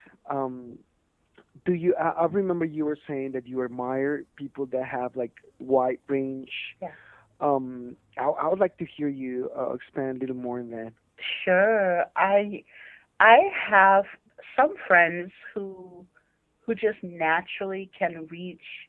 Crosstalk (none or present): none